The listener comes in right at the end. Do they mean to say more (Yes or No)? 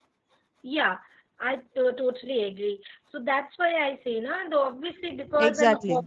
No